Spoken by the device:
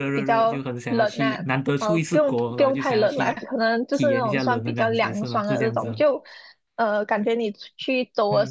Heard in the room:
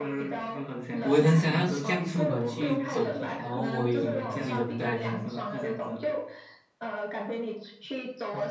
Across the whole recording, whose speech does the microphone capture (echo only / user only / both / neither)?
both